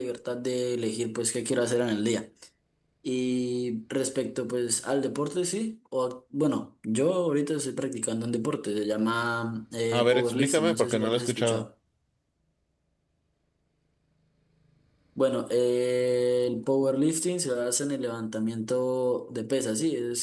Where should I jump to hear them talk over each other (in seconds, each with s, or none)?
9.9 s